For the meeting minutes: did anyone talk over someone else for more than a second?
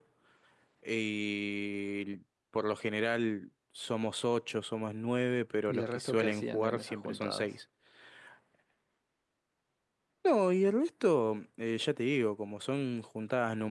Yes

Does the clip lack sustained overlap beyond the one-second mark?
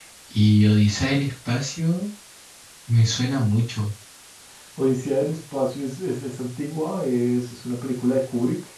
Yes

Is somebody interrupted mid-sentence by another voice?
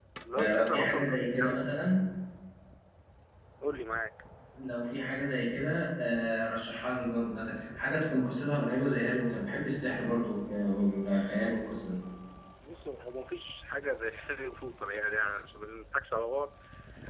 Yes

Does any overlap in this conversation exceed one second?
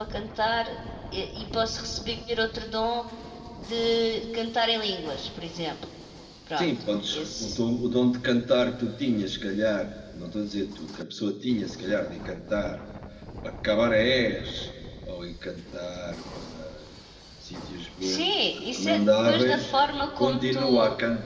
Yes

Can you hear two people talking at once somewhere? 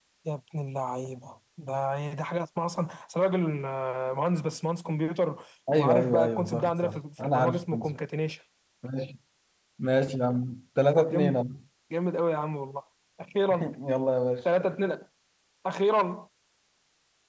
Yes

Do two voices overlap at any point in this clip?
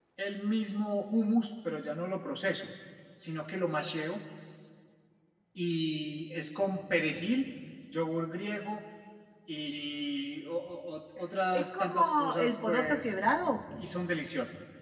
Yes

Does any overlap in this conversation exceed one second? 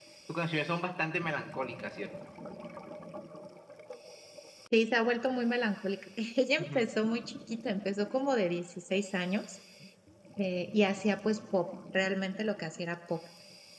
No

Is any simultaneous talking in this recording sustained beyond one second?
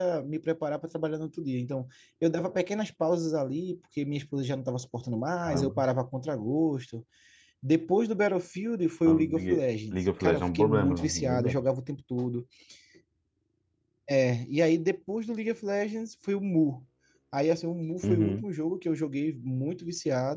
Yes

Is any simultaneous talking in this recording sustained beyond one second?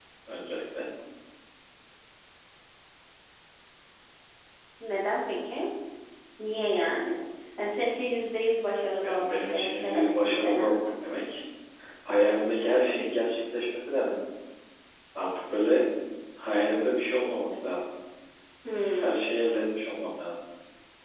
Yes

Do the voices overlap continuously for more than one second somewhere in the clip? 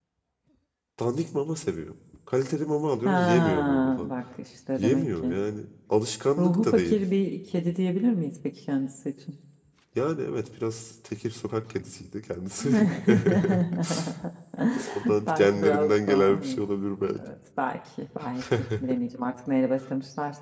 Yes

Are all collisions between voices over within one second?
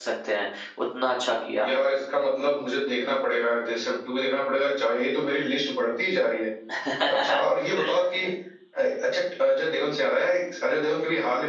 Yes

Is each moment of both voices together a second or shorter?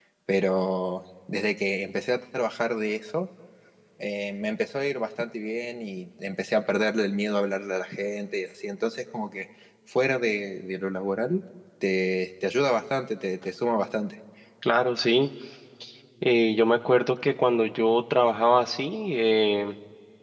Yes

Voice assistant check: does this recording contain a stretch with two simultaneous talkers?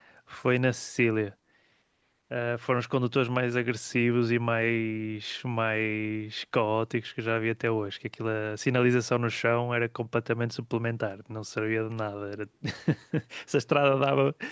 No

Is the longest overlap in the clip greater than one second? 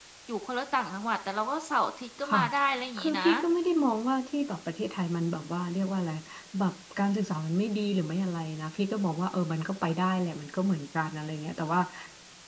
No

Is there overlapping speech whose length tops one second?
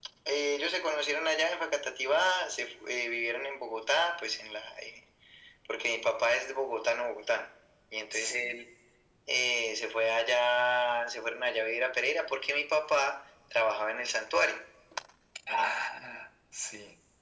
No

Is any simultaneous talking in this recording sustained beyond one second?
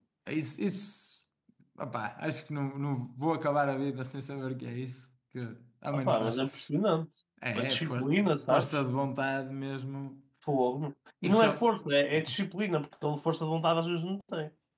Yes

